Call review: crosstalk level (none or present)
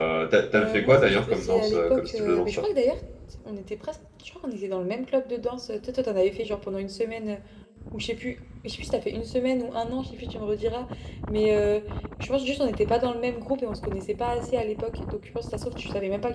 present